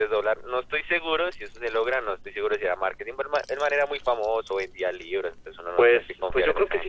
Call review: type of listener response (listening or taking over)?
taking over